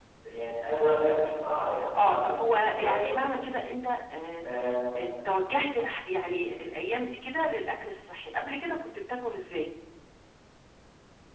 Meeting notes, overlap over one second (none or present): present